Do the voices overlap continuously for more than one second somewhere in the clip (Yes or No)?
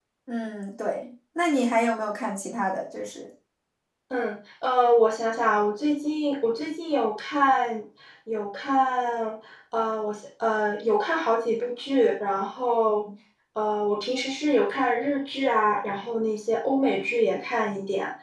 No